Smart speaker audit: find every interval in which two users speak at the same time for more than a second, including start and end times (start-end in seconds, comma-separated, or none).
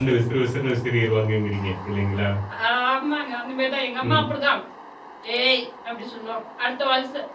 none